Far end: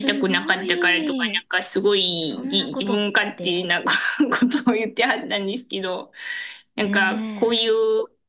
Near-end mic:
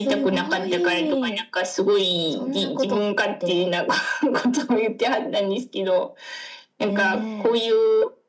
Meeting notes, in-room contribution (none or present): none